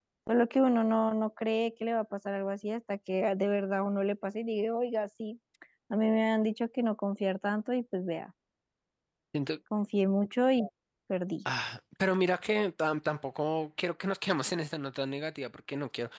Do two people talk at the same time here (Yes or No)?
No